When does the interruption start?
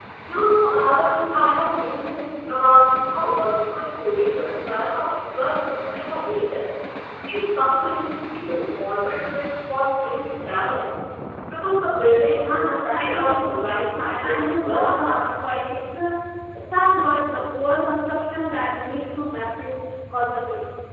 12.3 s

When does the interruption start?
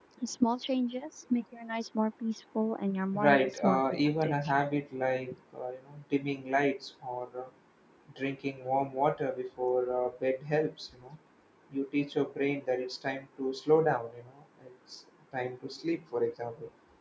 3.1 s

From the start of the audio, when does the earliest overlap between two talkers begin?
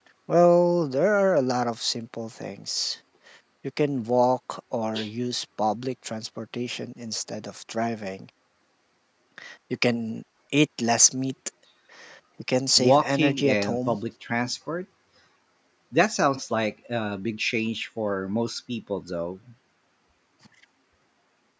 12.8 s

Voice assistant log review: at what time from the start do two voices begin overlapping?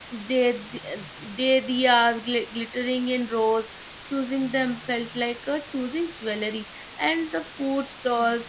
none

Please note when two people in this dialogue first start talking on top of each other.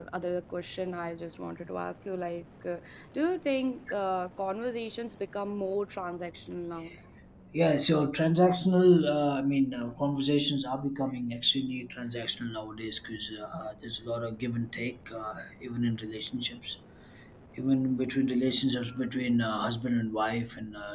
none

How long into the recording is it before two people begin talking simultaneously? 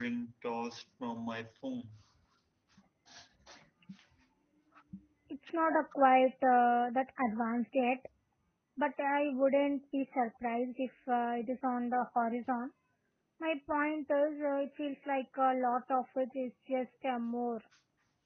none

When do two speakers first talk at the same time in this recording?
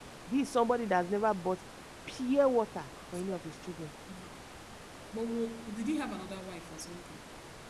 none

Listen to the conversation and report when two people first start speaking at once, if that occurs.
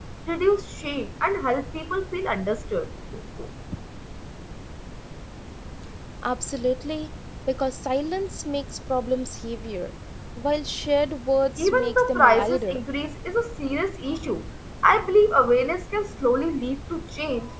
11.6 s

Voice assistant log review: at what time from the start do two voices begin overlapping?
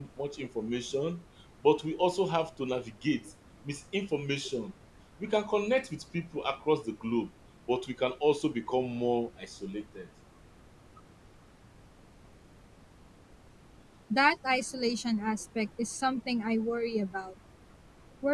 none

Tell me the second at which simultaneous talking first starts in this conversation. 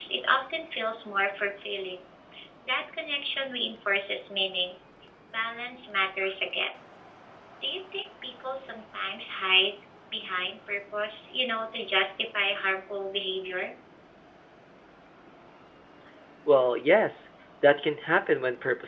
none

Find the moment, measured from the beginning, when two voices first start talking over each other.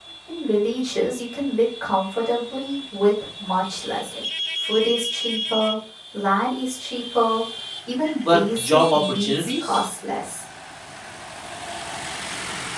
8.3 s

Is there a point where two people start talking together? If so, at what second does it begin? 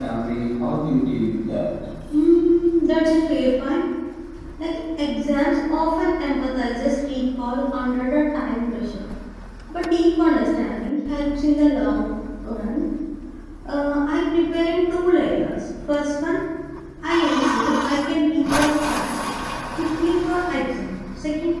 none

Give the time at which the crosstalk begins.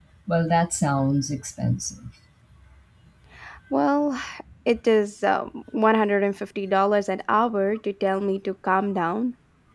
none

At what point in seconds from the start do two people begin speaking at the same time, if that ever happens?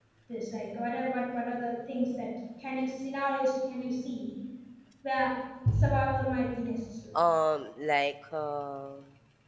none

